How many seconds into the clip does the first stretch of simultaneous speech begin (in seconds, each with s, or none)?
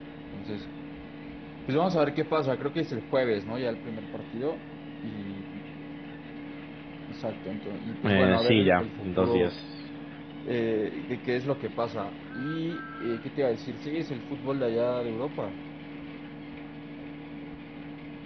8.0 s